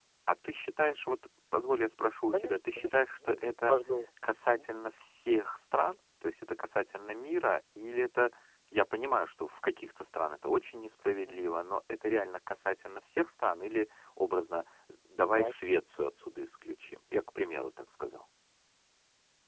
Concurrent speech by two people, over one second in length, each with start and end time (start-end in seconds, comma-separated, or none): 2.3-3.8